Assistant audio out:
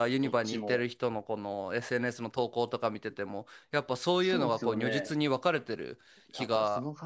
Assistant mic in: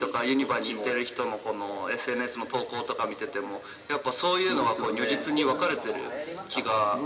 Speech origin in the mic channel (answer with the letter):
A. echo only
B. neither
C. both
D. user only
C